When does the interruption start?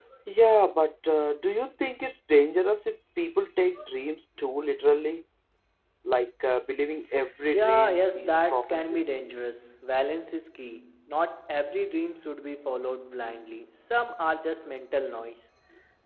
7.5 s

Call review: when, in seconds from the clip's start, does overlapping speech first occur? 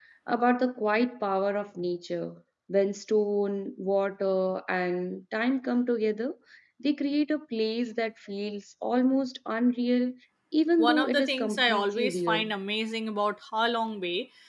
10.8 s

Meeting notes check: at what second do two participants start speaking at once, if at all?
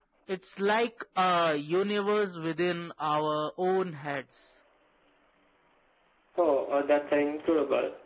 none

